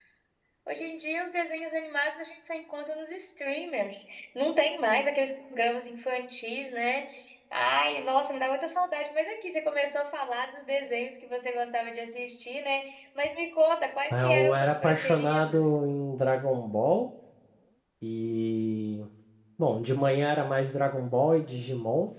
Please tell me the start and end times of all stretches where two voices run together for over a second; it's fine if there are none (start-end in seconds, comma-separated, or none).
14.1-15.6